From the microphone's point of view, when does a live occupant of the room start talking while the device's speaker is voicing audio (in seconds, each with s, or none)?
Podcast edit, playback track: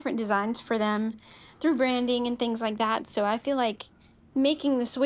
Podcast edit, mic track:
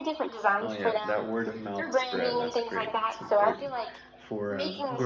0.6 s